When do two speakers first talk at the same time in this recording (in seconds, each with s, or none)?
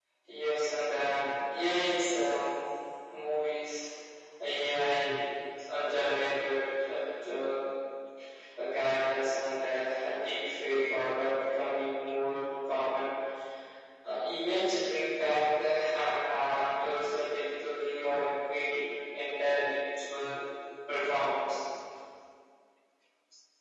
none